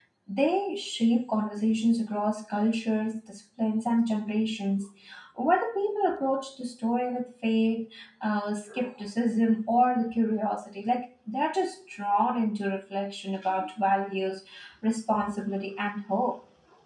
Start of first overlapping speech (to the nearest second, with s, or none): none